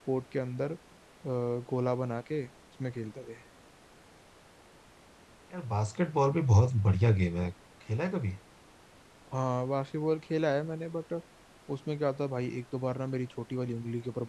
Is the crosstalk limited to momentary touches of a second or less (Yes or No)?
Yes